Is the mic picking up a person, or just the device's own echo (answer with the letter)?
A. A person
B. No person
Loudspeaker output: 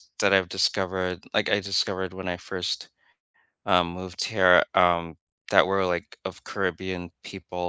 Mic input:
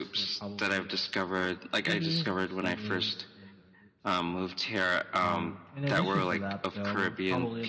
A